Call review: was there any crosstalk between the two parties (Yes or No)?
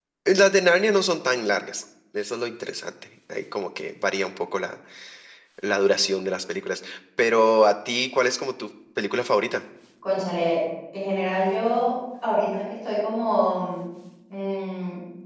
No